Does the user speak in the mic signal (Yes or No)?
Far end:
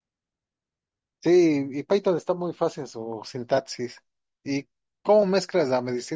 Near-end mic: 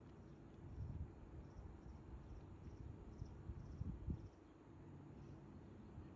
No